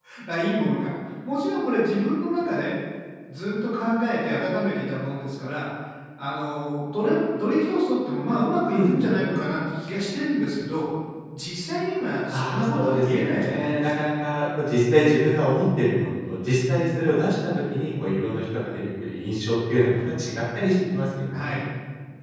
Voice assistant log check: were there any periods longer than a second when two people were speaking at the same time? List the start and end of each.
12.3-14.0

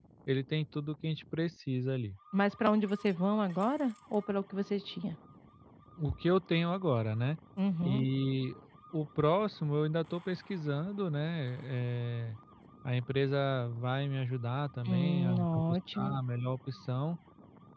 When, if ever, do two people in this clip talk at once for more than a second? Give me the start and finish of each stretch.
14.8-16.1

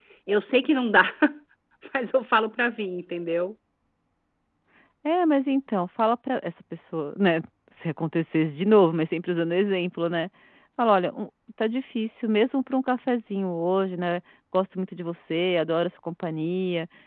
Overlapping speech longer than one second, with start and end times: none

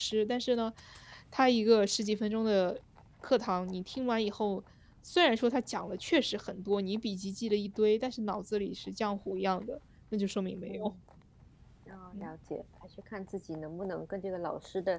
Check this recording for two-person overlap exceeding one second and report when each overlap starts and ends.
none

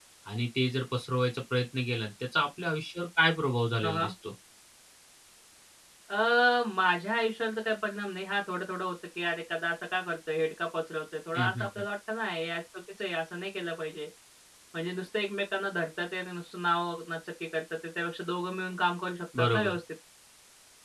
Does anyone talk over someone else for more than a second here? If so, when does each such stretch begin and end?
none

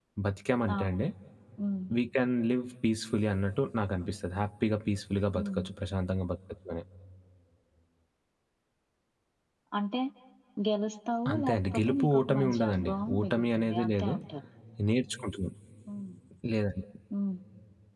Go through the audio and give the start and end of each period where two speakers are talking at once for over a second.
11.3-14.1

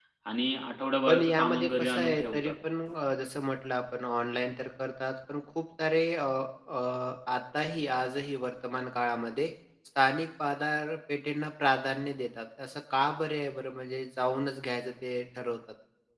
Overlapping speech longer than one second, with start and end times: 1.1-2.5

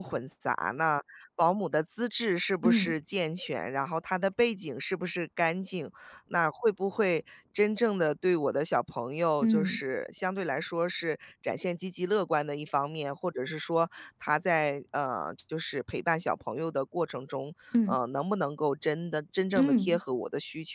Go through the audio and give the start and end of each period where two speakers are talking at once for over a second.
none

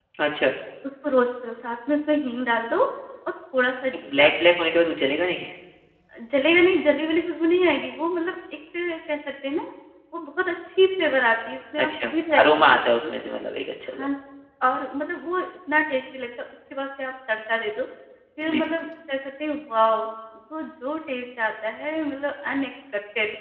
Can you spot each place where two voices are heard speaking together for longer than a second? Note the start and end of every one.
11.8-13.1

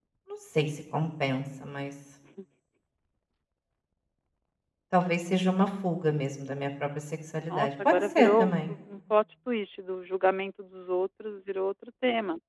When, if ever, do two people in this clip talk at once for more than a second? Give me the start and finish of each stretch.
7.5-8.7

